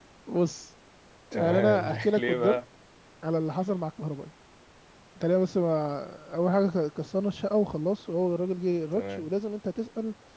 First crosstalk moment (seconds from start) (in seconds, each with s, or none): 1.3 s